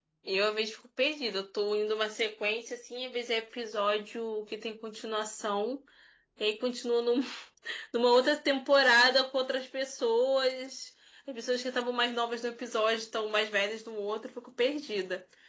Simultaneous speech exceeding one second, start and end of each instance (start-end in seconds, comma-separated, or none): none